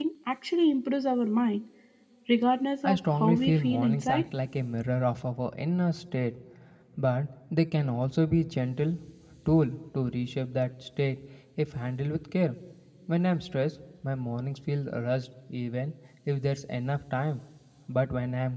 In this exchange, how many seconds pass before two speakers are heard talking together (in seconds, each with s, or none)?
2.8 s